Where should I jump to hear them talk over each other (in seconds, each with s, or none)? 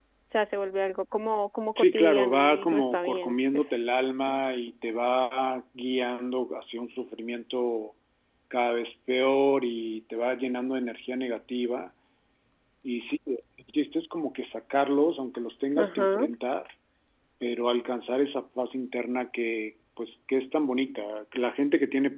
1.8 s